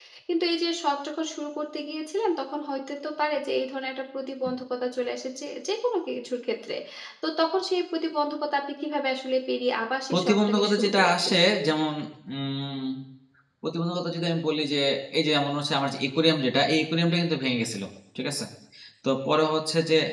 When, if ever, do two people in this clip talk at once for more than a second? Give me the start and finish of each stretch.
10.1-11.4

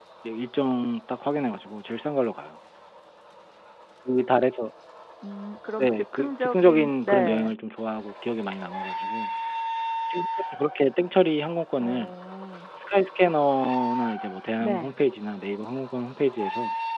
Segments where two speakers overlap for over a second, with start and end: 5.8-7.5

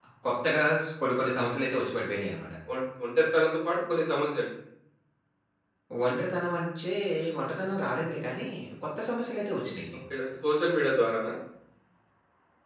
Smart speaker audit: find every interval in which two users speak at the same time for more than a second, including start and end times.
none

